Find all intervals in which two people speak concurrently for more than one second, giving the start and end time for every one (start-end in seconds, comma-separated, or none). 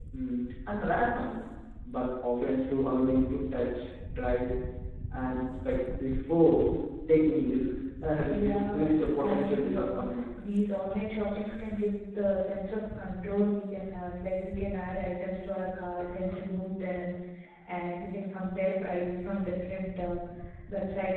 8.3-10.0